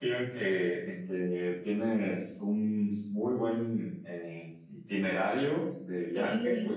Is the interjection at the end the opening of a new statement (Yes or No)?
No